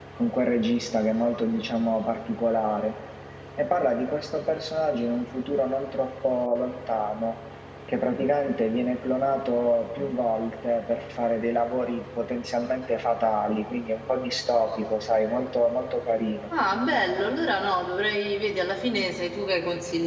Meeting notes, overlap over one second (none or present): none